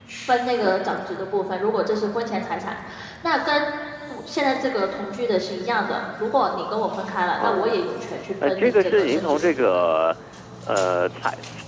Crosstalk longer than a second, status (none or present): present